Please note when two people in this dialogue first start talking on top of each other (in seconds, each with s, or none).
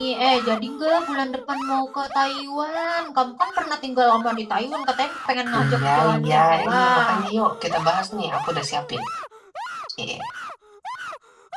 5.5 s